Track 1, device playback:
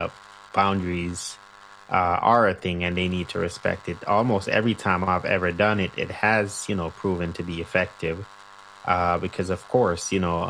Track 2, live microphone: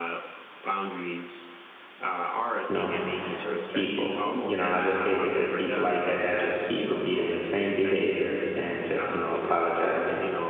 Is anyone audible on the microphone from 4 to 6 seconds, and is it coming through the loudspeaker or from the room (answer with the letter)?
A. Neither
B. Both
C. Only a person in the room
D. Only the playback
B